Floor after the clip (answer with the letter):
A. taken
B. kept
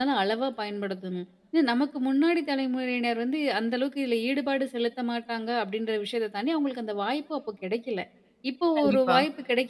B